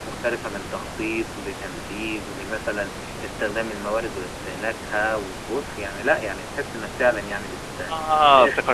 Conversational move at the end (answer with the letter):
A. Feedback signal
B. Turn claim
B